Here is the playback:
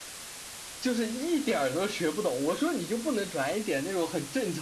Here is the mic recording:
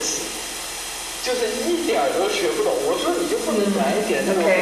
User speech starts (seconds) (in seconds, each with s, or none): 3.5 s